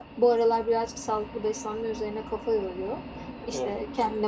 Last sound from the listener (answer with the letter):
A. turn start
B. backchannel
B